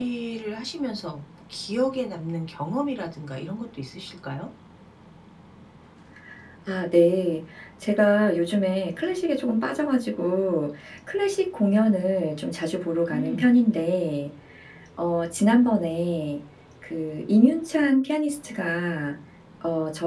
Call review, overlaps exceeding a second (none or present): none